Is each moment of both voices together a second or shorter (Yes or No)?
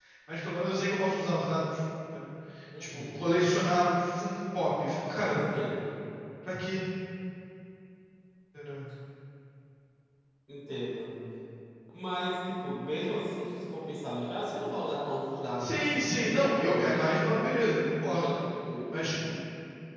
No